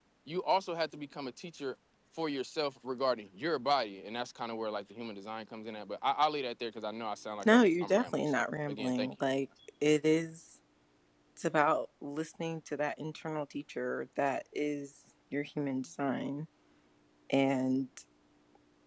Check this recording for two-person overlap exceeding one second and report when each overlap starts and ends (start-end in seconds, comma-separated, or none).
7.4-9.1